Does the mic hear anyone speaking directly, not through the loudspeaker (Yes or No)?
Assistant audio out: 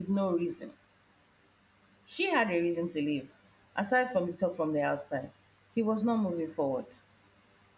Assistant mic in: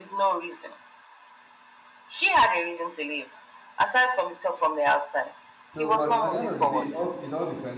Yes